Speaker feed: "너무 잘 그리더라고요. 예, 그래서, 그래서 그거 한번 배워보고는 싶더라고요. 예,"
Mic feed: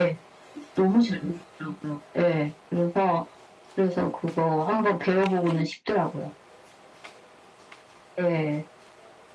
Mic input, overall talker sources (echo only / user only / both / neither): echo only